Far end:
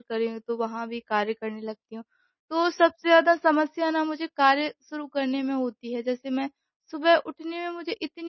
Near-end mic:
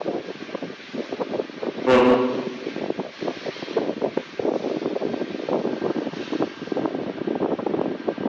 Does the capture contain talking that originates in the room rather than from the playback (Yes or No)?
Yes